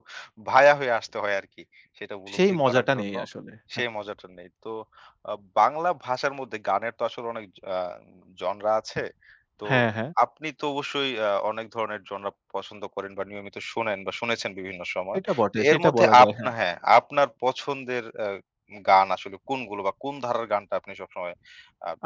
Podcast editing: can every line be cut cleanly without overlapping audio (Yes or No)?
No